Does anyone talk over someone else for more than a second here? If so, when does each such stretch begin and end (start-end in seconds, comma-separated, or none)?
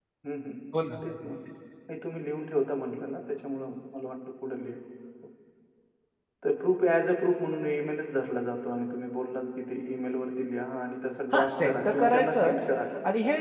11.3-12.5